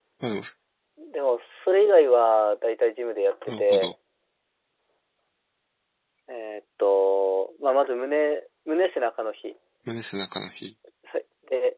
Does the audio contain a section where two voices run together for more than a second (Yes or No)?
No